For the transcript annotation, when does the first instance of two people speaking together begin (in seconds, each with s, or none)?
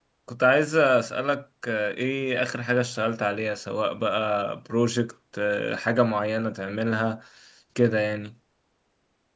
none